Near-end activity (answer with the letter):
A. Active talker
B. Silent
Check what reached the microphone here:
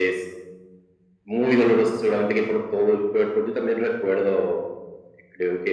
B